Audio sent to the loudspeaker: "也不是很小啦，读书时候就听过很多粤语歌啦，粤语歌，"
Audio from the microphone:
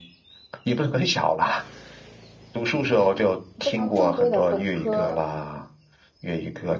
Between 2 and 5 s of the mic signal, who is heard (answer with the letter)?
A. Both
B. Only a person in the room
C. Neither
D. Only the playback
A